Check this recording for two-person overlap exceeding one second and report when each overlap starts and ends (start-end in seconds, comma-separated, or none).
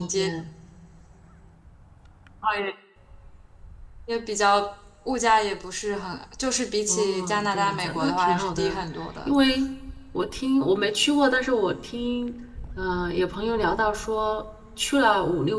6.9-8.8